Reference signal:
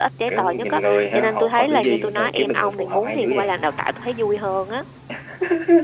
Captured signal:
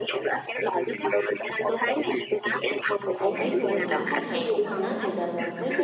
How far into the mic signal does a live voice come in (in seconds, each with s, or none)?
3.2 s